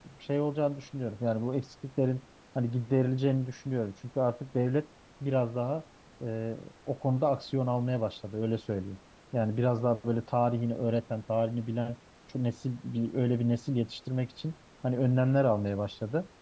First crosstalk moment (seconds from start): none

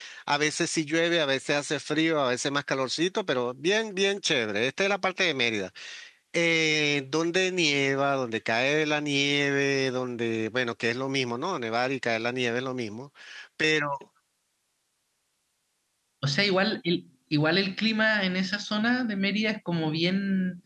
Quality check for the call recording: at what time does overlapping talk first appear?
none

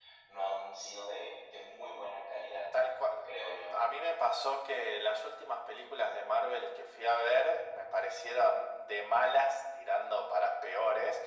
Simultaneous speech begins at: none

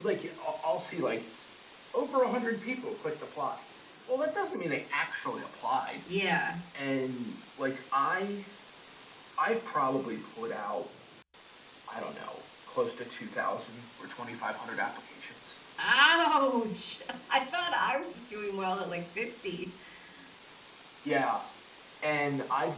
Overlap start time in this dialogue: none

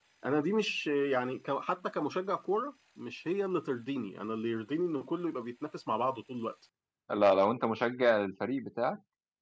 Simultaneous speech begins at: none

